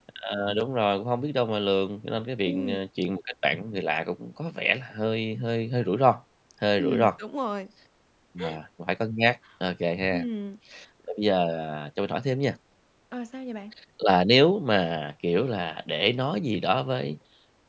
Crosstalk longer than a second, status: none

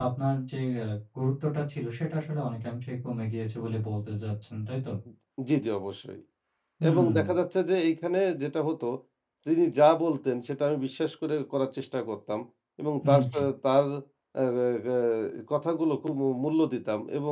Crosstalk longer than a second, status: none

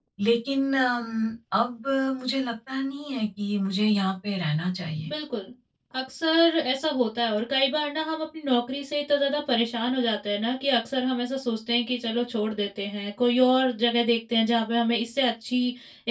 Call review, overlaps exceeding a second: none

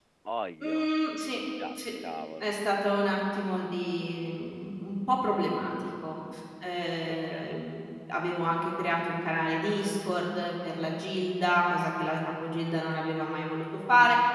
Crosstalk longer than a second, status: none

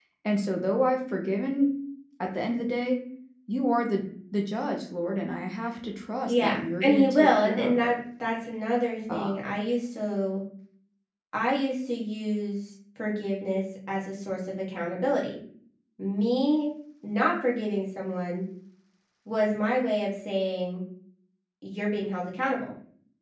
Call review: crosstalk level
present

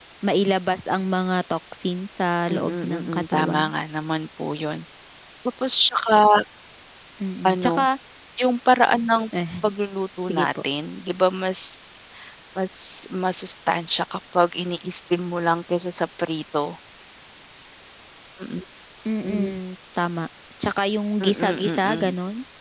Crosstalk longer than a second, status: present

